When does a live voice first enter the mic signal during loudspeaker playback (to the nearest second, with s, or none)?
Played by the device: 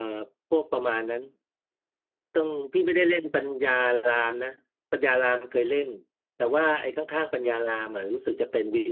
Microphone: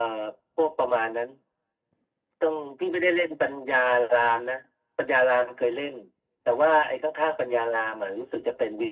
none